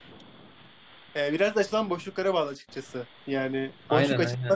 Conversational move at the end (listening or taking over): listening